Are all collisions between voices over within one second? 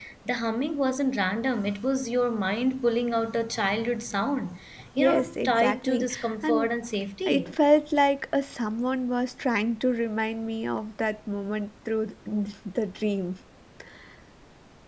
No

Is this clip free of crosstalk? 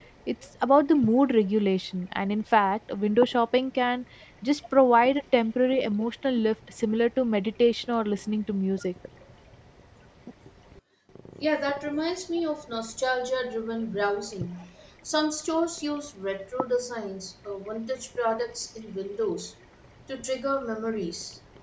Yes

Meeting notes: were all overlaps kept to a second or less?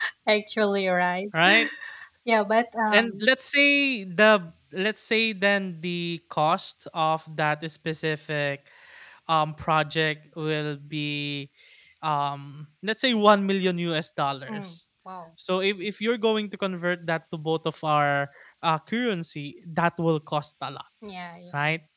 Yes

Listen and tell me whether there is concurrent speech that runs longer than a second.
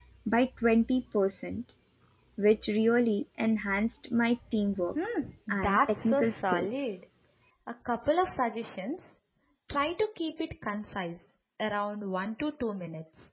Yes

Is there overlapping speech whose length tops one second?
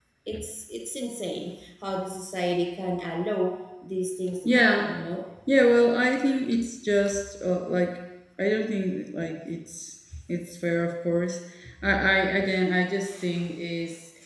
No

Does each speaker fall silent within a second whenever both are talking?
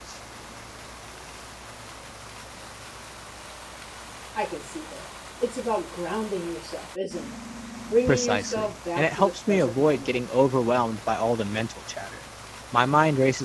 No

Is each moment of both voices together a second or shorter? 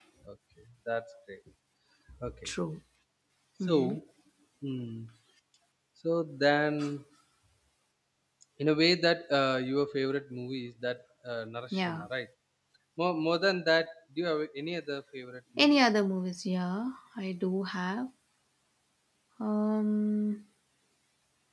Yes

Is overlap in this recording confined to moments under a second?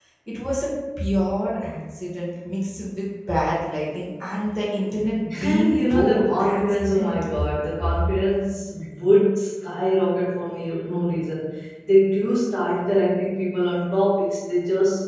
No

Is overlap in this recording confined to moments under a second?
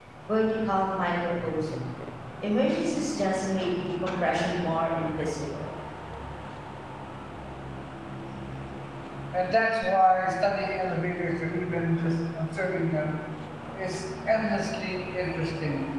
Yes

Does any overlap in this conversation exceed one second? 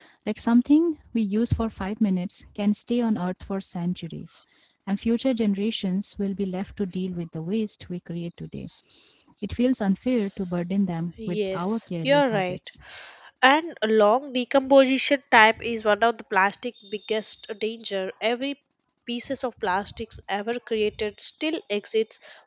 Yes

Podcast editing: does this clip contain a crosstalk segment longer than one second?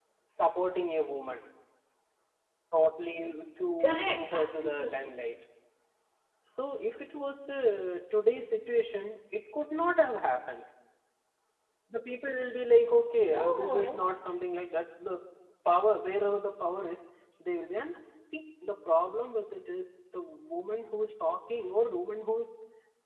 Yes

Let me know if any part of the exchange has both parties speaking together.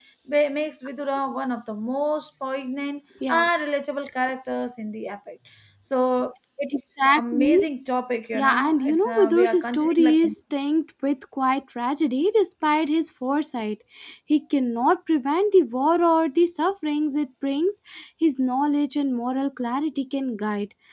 Yes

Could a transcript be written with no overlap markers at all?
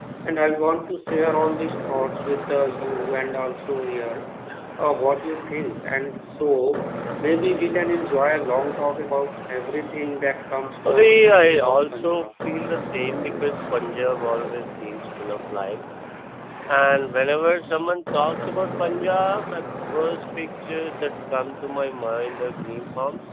No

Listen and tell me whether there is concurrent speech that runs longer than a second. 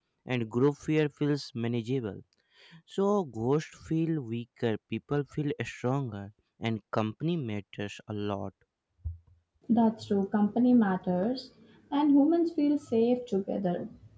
No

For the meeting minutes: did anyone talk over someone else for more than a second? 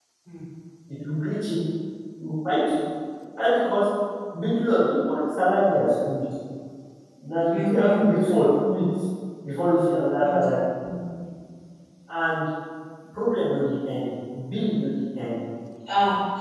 No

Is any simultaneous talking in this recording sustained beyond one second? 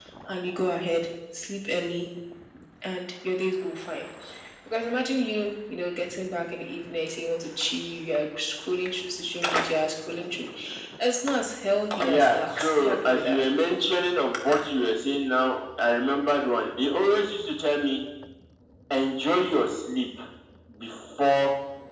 Yes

